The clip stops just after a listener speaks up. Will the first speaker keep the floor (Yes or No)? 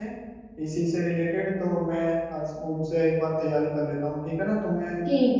No